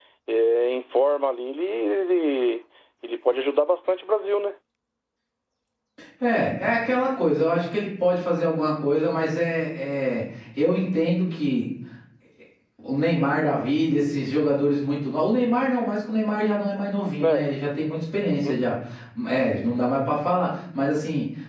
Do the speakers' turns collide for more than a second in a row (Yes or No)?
No